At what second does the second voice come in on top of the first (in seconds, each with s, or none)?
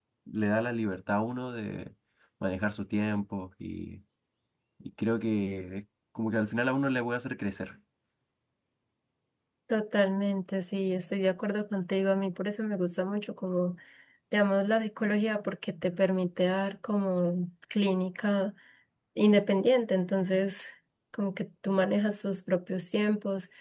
none